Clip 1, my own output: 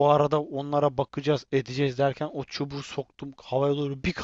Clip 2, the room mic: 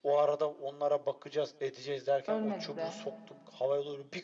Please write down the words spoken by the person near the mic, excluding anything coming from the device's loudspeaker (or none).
Ölmedi de.